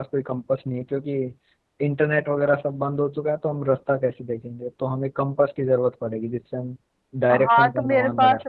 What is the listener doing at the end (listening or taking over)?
taking over